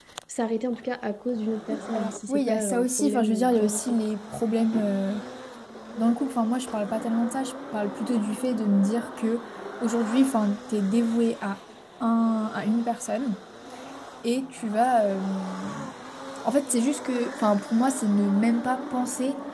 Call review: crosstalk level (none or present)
present